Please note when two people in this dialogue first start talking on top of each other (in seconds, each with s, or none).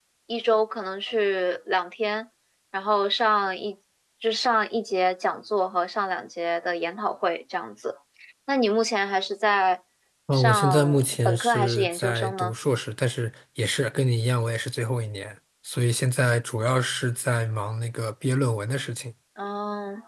10.3 s